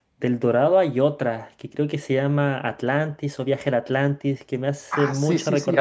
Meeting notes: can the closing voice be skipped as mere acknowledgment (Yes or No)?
No